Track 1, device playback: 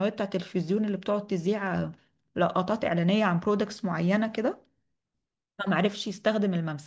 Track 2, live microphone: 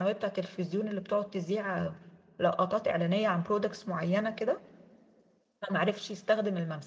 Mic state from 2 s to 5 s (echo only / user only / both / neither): echo only